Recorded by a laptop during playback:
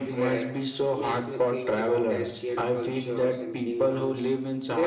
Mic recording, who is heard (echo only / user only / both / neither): echo only